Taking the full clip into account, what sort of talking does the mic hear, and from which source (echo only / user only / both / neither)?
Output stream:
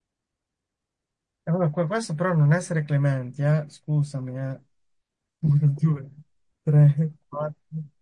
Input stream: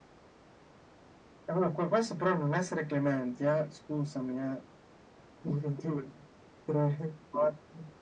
echo only